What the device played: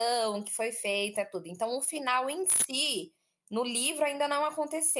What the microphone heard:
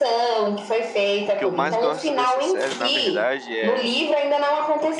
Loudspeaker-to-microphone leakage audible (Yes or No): Yes